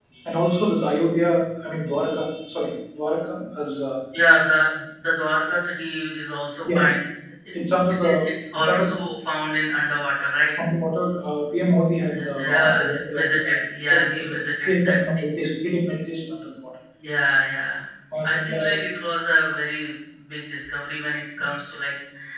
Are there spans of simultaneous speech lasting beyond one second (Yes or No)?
Yes